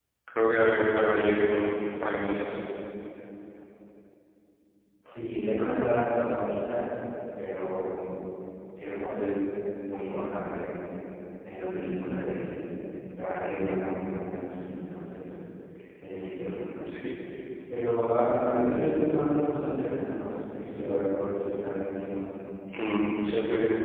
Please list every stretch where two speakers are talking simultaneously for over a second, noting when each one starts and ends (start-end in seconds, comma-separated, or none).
none